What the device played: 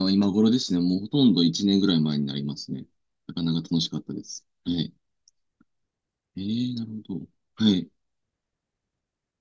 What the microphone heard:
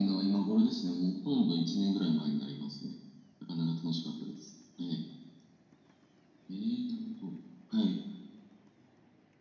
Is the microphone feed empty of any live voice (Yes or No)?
Yes